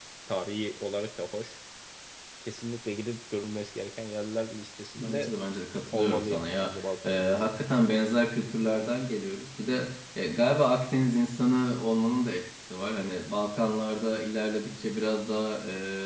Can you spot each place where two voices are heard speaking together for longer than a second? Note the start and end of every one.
5.9-7.2

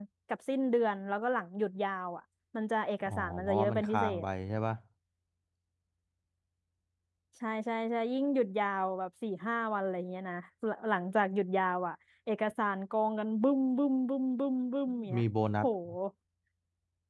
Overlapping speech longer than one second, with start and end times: 3.0-4.2

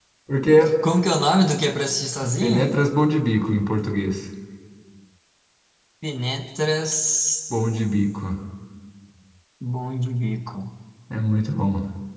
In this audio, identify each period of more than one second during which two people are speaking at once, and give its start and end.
none

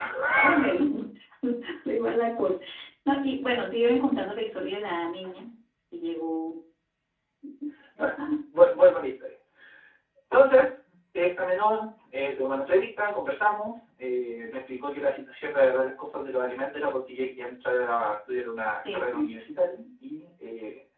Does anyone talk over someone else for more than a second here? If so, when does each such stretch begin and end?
none

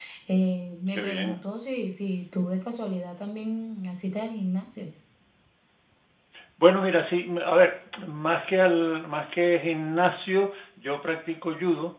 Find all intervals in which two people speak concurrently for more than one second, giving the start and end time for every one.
none

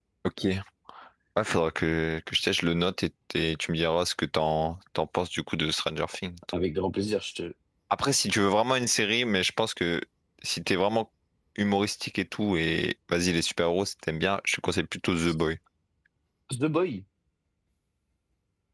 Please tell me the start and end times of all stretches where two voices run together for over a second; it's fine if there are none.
none

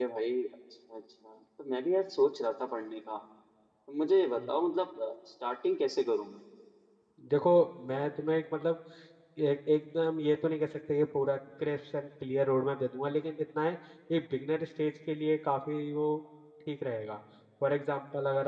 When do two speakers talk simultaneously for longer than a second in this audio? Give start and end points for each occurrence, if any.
none

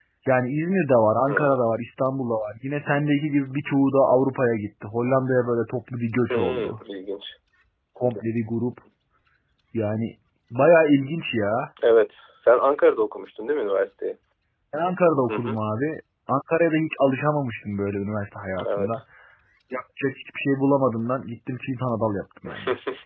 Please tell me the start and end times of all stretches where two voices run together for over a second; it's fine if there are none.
none

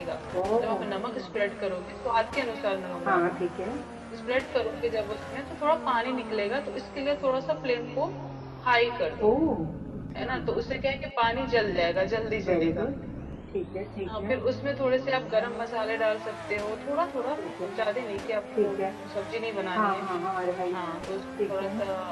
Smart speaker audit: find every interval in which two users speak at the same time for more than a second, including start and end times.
none

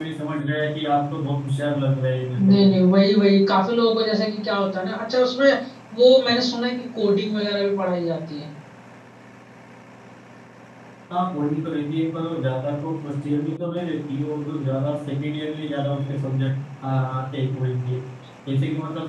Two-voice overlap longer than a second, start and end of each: none

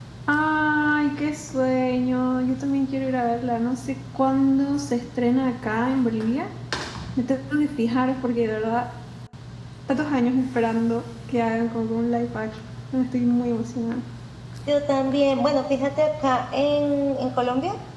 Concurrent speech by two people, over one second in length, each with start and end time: none

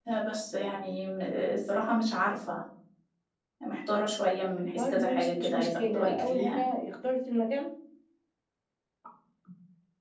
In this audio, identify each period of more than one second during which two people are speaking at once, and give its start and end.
4.8-6.6

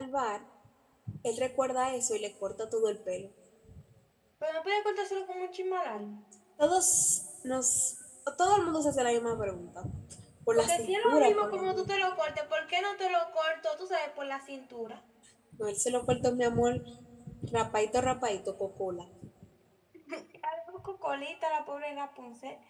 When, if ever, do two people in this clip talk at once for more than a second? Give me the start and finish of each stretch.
10.6-11.9

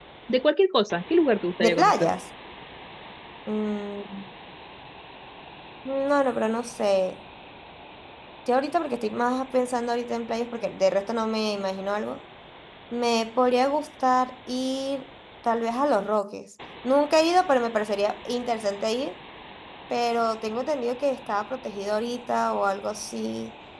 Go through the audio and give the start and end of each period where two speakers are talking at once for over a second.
none

